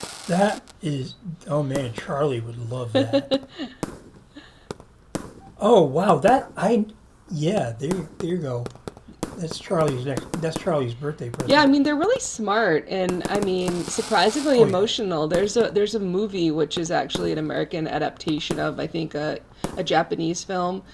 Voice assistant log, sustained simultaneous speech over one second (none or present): none